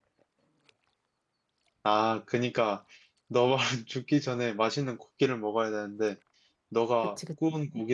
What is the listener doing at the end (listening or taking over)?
listening